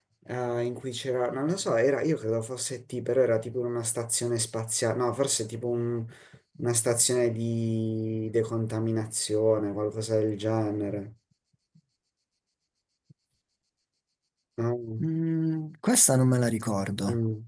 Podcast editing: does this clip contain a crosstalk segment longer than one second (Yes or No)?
No